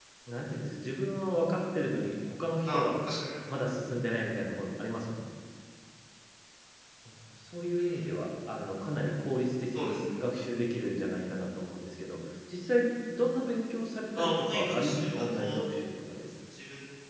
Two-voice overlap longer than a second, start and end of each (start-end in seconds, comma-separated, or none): 14.1-15.6